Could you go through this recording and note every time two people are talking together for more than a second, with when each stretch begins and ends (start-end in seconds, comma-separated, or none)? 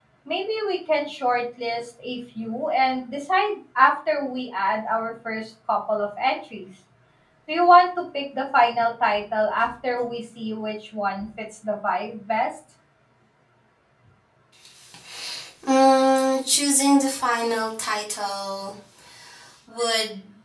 none